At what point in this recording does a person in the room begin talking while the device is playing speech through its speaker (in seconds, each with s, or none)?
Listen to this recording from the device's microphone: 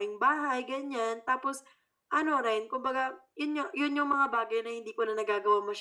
none